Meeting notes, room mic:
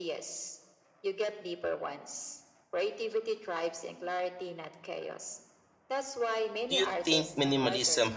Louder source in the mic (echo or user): user